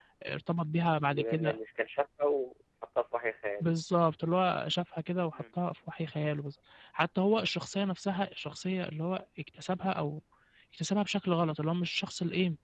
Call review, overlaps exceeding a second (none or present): none